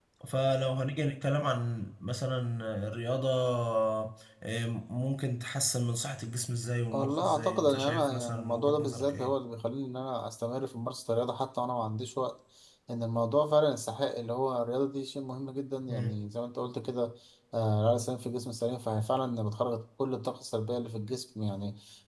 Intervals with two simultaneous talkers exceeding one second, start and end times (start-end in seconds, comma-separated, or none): 6.9-9.3